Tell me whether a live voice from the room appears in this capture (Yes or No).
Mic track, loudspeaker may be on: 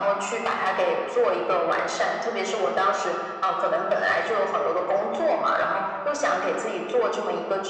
No